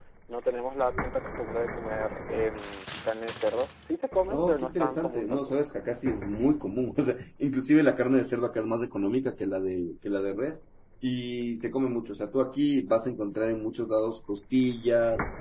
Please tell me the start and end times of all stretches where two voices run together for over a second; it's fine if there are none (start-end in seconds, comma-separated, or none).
4.3-5.6